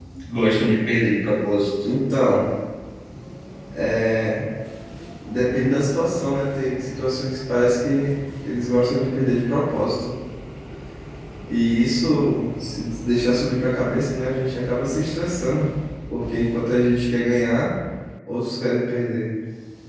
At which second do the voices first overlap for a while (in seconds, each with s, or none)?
none